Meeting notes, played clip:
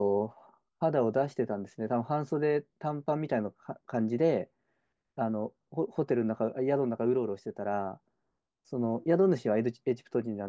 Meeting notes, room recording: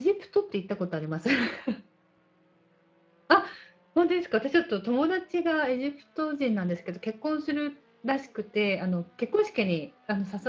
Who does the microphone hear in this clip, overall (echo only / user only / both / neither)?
user only